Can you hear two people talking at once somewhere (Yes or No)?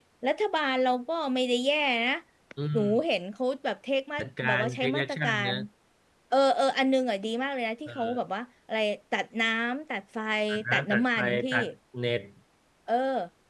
Yes